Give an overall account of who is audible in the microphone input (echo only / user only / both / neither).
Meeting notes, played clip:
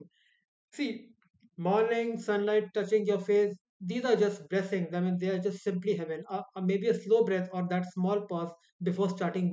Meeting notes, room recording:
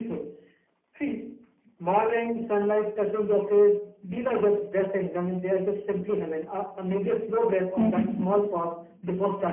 both